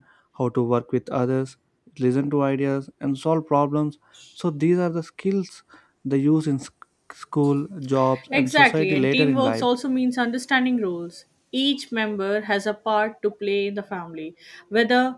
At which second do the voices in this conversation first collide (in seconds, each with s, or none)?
8.3 s